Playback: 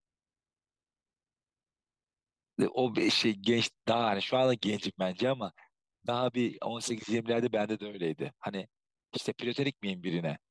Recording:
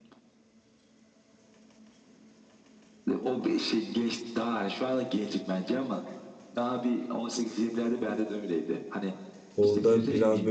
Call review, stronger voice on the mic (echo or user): user